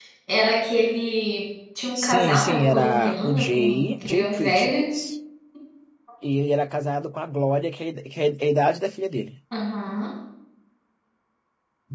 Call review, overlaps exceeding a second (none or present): present